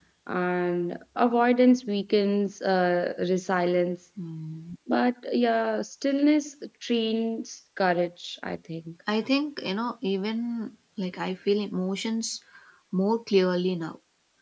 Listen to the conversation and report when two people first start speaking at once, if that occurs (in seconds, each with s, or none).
none